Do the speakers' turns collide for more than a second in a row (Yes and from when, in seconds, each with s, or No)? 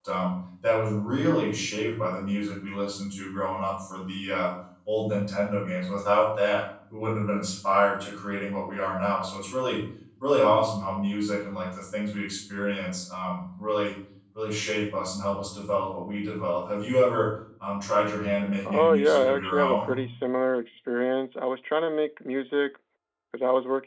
Yes, from 18.6 s